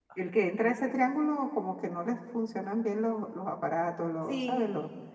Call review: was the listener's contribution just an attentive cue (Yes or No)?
Yes